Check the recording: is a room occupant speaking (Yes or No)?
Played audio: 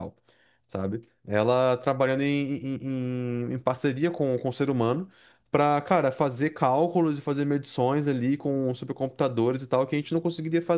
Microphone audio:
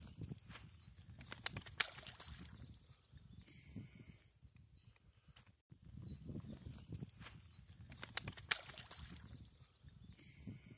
No